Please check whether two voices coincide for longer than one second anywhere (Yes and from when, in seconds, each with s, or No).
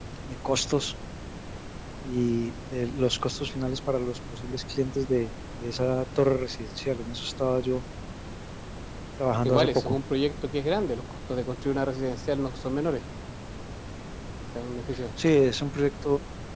No